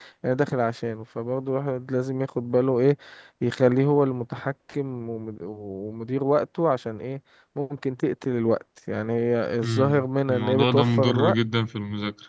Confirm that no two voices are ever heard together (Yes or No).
No